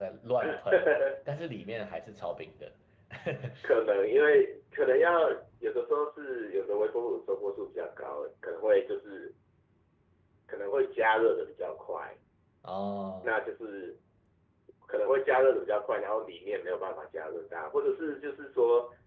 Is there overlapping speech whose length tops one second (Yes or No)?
No